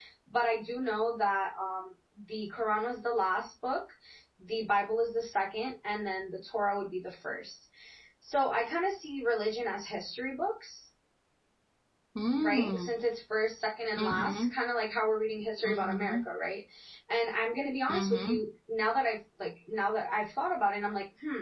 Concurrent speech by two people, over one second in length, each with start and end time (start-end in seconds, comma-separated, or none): none